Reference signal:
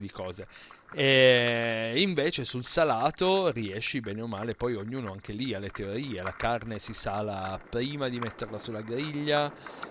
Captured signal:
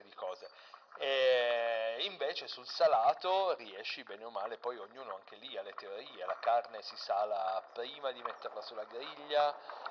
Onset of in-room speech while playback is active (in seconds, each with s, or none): none